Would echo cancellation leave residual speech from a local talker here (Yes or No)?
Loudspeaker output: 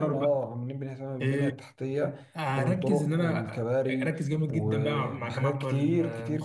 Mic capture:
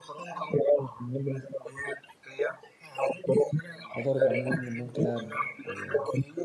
Yes